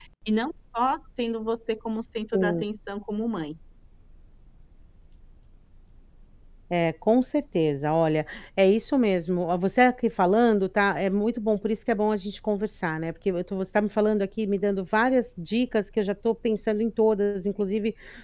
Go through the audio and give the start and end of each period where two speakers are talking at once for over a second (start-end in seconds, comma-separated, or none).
none